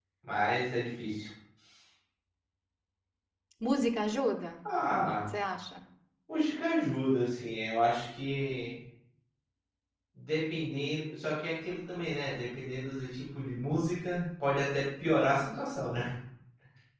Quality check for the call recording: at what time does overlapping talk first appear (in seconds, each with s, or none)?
none